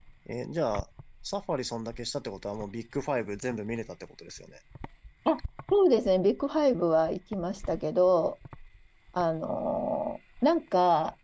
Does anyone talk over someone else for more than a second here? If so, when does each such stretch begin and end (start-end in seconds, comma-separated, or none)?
none